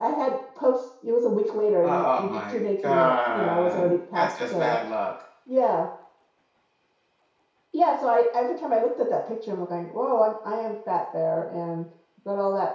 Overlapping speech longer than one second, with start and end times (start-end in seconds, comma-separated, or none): 1.8-4.8